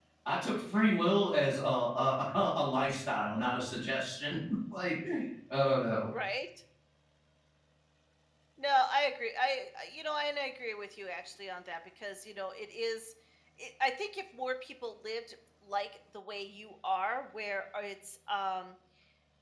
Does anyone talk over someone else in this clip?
No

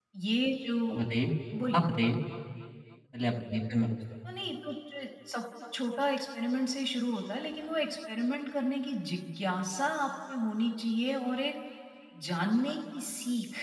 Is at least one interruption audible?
No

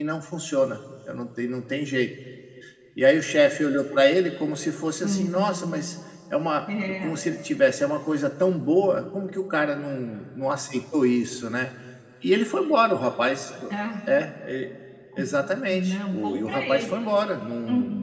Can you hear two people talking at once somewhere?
Yes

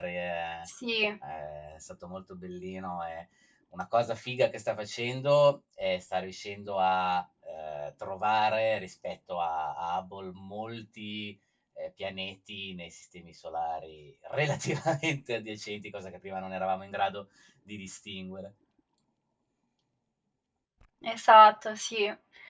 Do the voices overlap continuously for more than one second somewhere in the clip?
No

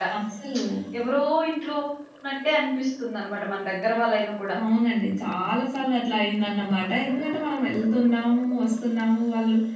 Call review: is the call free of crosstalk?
Yes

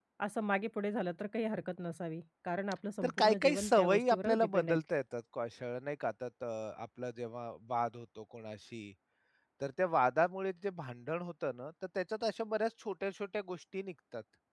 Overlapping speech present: Yes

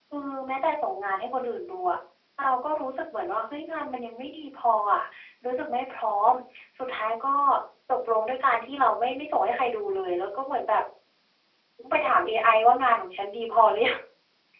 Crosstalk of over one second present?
No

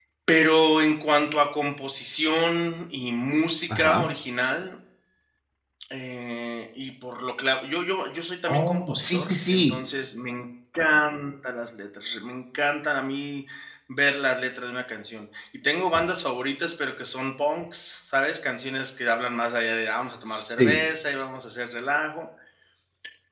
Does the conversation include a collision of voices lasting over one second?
Yes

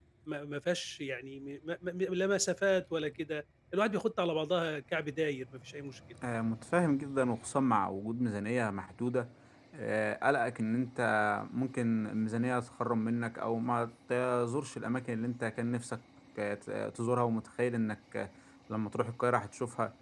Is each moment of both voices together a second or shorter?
Yes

